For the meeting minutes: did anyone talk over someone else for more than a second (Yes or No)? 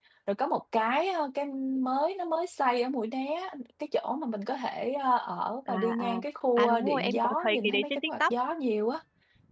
Yes